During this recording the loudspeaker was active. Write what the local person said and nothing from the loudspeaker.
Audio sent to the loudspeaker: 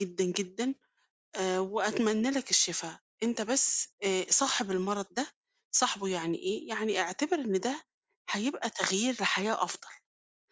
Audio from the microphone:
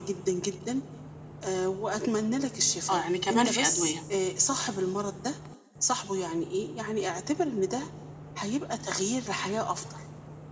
آه، يعني كمان في أدوية.

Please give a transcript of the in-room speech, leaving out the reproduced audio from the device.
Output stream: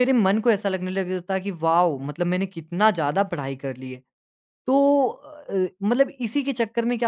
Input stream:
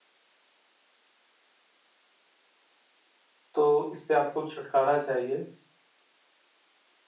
तो इससे आपको छुटकारा चाहिए।

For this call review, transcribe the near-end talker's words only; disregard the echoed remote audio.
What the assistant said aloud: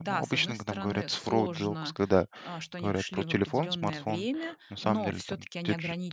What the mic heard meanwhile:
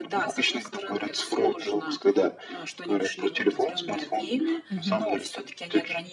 Мгм.

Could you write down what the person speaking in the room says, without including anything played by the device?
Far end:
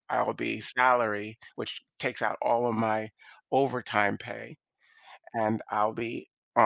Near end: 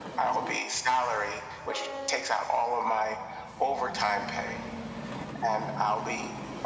none

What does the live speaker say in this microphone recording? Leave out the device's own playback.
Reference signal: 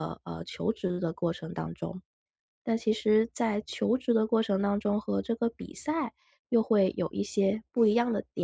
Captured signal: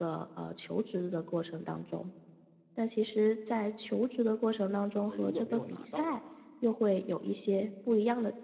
没如果没有拿到的话，

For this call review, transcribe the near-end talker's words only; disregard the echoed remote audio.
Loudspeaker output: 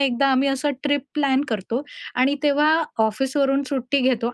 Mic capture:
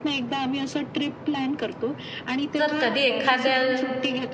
जर कधी एखाद्या

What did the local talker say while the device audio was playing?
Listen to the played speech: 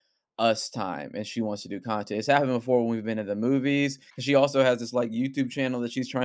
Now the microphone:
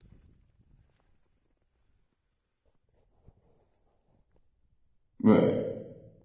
Right.

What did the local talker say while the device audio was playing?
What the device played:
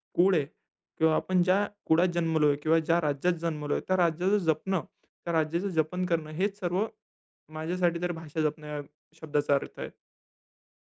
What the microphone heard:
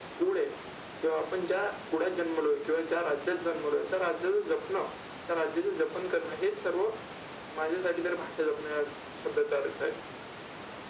none

